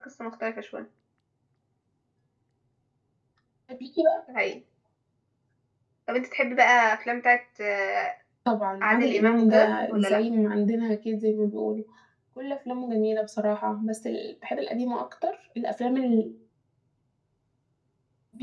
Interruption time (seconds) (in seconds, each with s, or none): 8.8 s